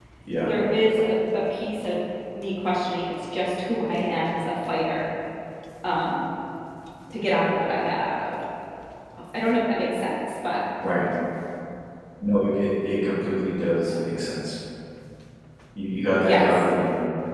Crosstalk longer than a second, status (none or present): none